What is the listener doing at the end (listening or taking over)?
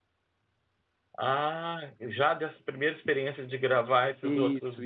taking over